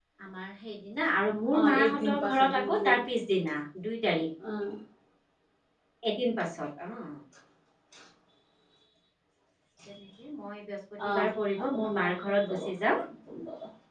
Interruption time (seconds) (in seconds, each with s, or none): 1.6 s